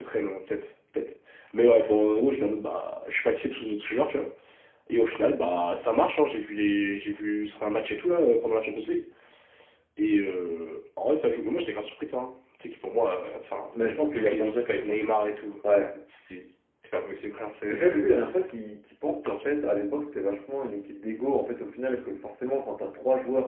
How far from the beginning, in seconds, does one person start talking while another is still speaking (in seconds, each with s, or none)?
13.7 s